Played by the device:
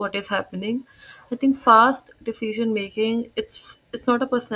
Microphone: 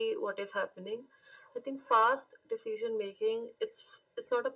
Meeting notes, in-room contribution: none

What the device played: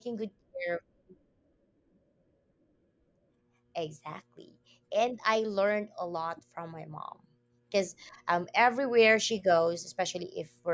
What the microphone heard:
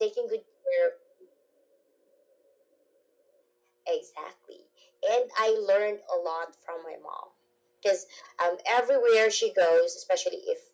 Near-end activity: none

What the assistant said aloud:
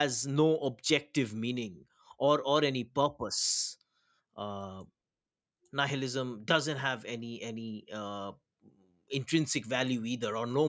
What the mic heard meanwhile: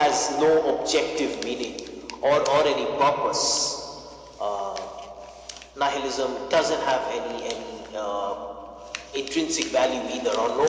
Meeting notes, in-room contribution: none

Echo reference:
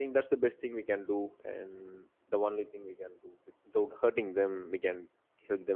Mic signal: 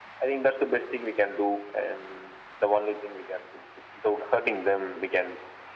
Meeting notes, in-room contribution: none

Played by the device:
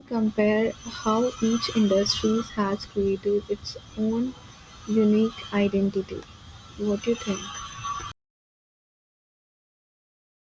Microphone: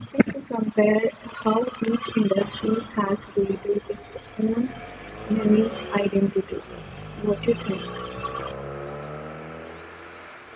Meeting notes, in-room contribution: none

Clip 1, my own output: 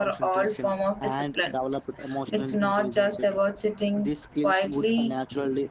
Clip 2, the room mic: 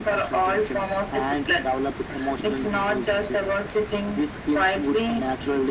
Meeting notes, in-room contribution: none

